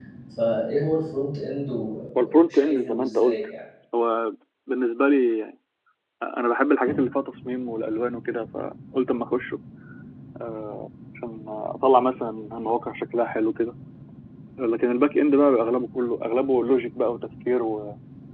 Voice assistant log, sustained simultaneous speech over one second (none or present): present